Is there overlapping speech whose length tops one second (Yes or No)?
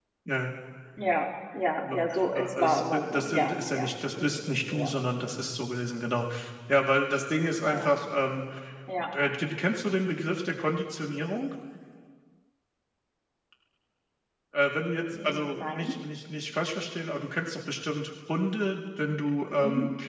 Yes